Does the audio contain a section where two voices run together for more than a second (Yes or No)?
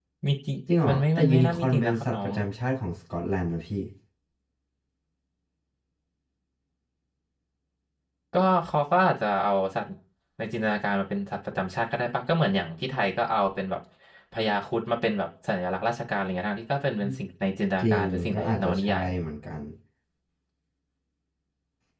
Yes